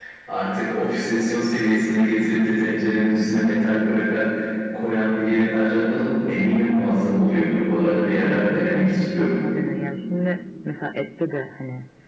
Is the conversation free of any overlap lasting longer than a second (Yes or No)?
No